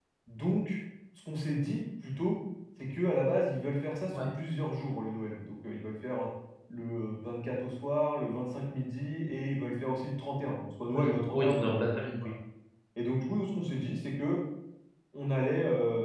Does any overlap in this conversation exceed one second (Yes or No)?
Yes